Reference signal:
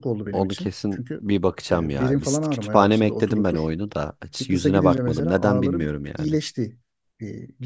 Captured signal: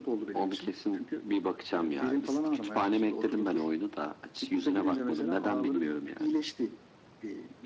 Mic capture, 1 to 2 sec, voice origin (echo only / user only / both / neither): echo only